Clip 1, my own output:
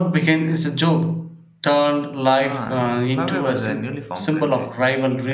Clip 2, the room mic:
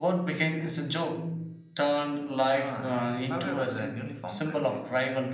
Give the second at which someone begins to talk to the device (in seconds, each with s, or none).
none